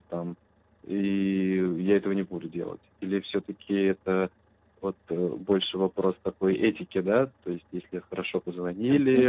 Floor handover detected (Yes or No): No